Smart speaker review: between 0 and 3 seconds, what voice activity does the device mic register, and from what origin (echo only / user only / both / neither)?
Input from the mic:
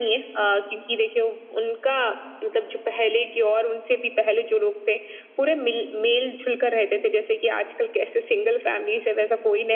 echo only